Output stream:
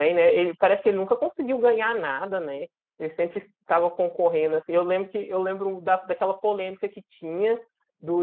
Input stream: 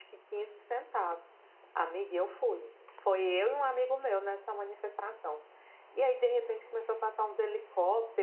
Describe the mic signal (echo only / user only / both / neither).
user only